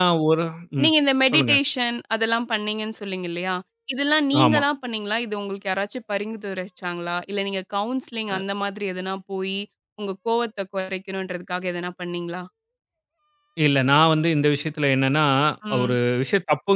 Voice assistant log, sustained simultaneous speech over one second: none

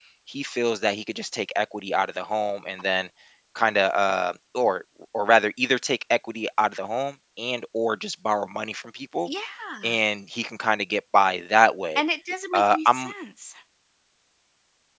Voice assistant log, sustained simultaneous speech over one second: none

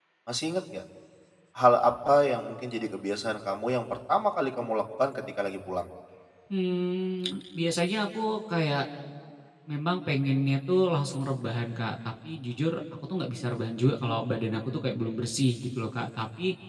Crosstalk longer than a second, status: none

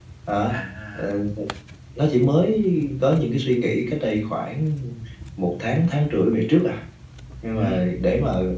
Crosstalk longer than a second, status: none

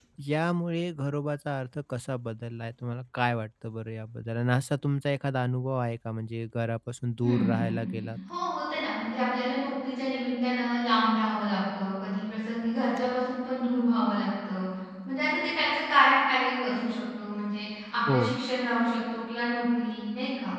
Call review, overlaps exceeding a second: none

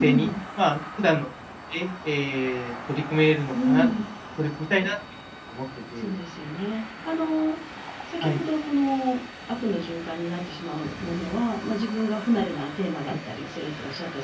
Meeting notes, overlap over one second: none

